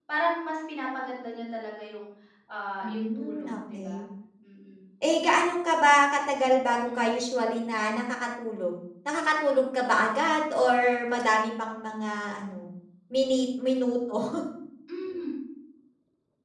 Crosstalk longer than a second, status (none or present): present